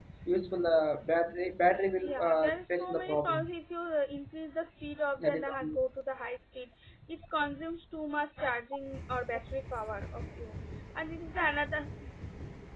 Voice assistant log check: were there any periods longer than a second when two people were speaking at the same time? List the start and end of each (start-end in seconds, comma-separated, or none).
2.0-3.5